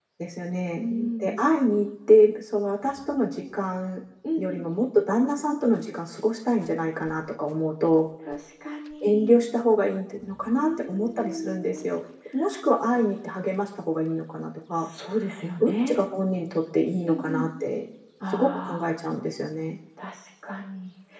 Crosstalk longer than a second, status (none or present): present